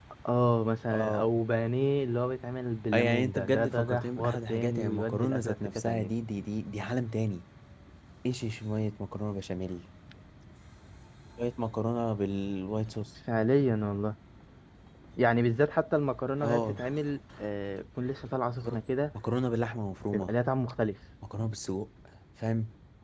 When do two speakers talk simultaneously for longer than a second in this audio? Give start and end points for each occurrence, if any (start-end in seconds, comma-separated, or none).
2.9-6.1